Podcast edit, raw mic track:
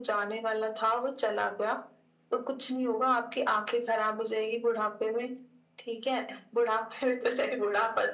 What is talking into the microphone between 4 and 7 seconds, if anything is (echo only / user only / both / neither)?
echo only